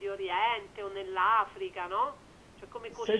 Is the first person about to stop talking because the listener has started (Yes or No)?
Yes